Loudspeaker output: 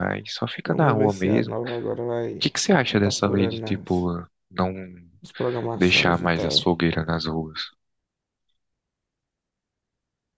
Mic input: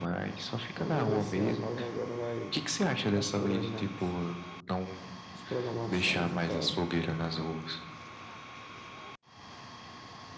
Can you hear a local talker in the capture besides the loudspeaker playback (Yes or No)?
No